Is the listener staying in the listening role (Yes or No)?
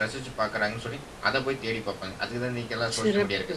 No